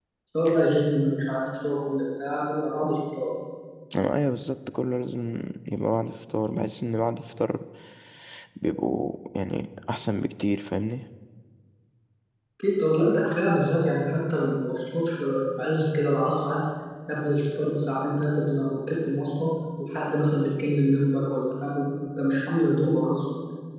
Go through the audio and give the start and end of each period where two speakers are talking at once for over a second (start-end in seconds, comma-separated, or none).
none